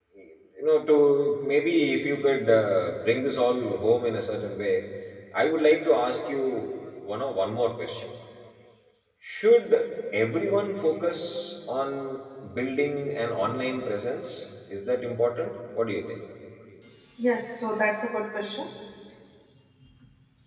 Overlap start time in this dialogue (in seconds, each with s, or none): none